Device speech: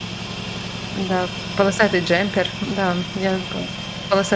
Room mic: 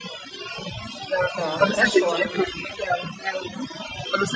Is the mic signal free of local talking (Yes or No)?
No